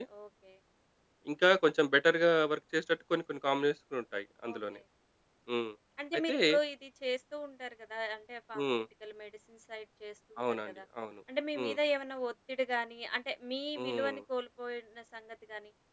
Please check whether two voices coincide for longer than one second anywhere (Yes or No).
No